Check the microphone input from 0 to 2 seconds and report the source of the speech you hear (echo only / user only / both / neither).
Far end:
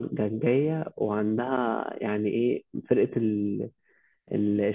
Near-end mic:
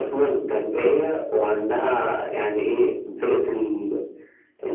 echo only